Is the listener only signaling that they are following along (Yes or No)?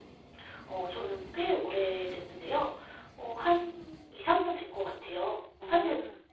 Yes